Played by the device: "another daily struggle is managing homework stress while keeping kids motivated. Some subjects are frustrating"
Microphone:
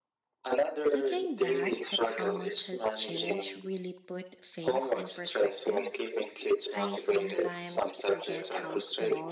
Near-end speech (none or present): present